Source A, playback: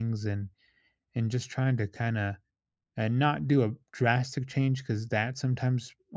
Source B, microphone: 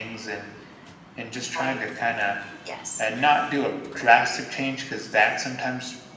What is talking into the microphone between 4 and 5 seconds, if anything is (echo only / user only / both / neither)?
echo only